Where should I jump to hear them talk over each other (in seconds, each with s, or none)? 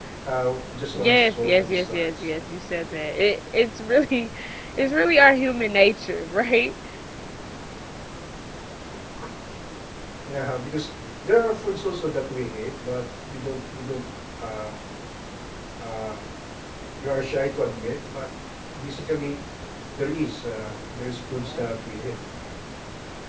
0.9 s